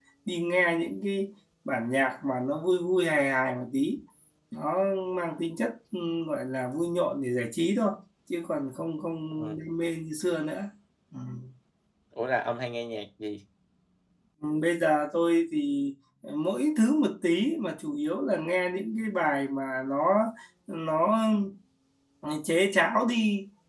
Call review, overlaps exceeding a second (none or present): none